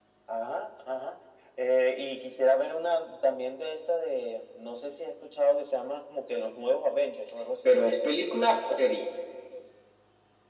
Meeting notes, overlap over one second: none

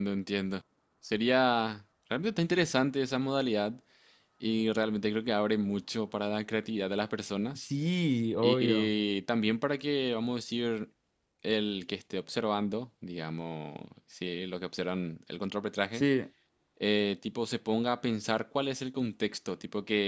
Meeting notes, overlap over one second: none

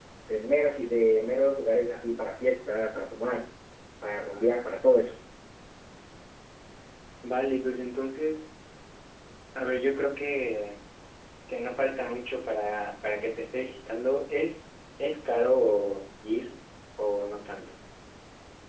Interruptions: none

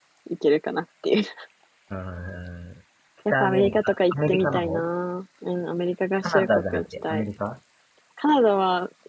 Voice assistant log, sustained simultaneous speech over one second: present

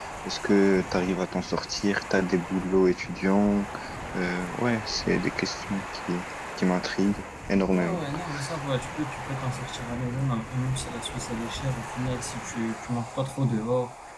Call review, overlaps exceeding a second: none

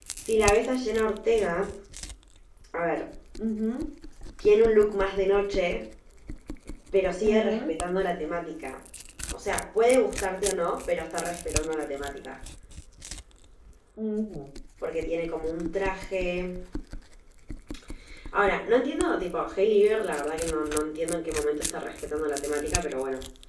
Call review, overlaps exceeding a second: none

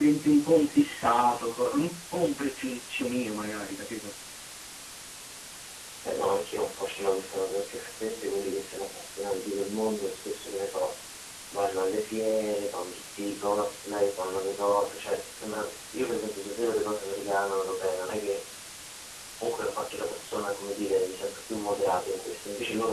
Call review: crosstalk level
none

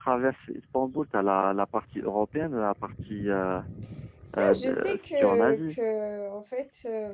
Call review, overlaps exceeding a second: present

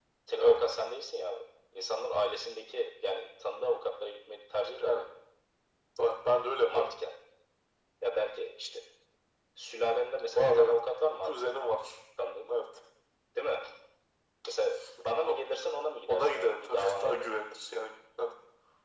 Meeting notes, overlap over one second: present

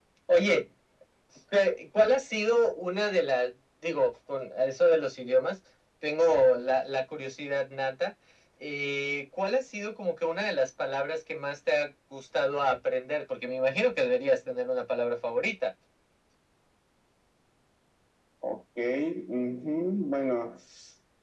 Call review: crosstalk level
none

